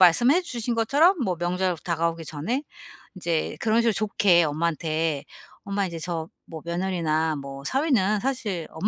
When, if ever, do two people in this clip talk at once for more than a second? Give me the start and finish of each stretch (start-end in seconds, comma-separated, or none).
none